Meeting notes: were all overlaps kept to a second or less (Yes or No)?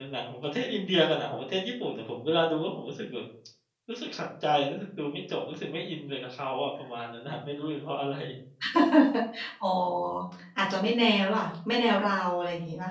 Yes